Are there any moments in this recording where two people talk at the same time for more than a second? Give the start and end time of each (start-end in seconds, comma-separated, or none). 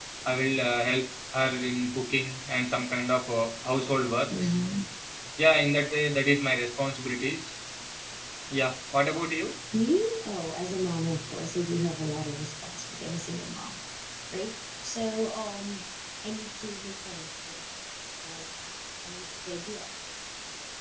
none